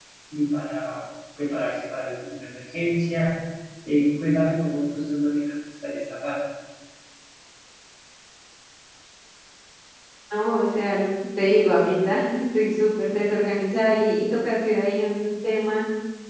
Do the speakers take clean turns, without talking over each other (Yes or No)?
Yes